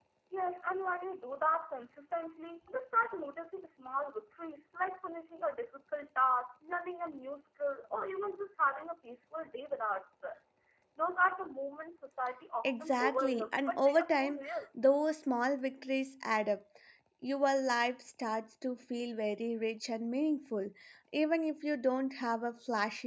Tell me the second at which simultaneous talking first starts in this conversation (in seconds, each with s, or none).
12.6 s